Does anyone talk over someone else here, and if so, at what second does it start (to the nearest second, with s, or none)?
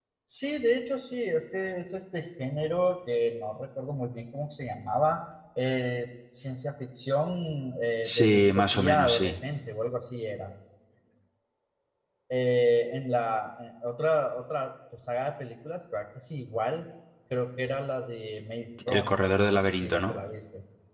8 s